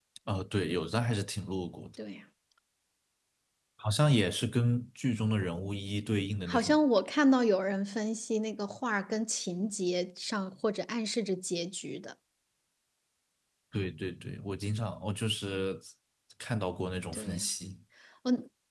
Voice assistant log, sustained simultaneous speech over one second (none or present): none